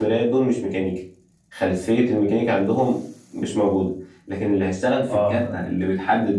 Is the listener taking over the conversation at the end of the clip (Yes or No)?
No